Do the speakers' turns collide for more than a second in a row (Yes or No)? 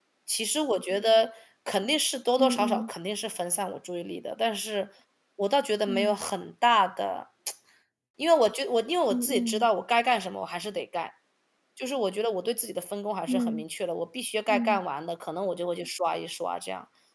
No